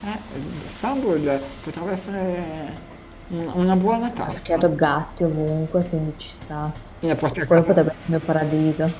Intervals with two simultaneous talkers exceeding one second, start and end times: none

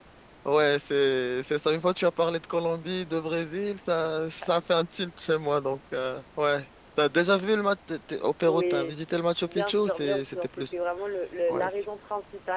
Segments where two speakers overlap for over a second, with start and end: 9.5-10.7

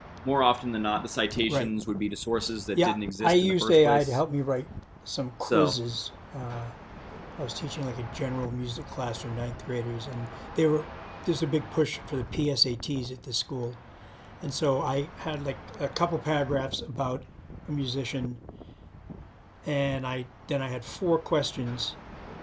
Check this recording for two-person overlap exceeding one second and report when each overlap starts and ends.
2.8-4.2

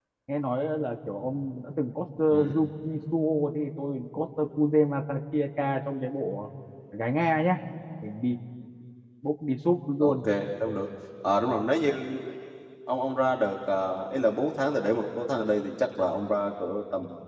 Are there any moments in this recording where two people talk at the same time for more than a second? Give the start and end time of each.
none

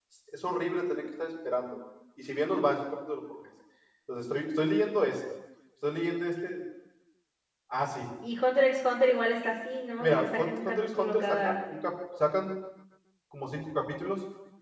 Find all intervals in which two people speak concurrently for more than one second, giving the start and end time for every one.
10.0-11.6

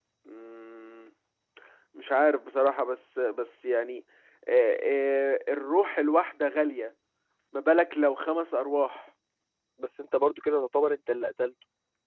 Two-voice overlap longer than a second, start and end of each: none

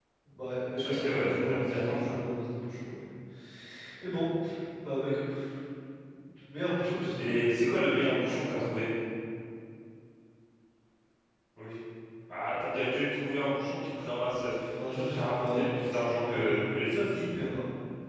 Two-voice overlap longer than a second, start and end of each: 0.8-2.1, 15.0-16.6

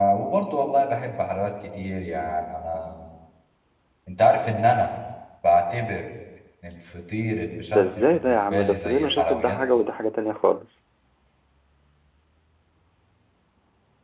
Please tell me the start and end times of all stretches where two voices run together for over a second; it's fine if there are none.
7.7-9.6

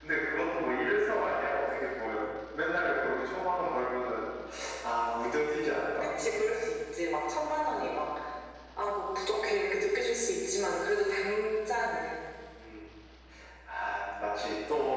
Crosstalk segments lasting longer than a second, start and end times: none

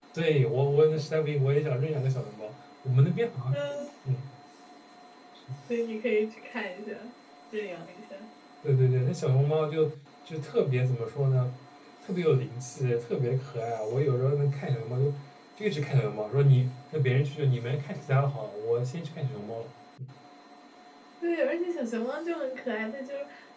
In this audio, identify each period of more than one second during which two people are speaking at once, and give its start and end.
none

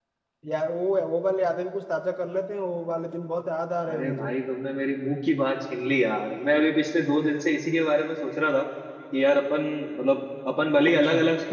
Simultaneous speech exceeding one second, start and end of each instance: none

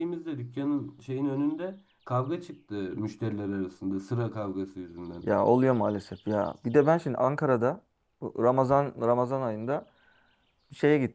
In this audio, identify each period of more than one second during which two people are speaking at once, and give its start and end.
none

